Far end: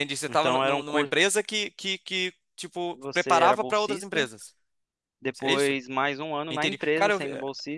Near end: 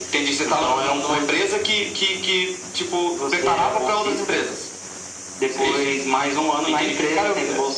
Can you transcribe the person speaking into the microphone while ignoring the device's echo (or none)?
none